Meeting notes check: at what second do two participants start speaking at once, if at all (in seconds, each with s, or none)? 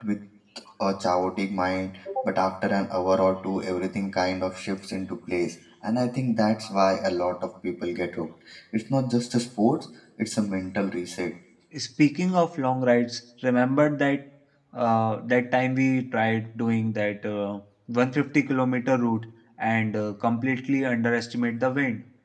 none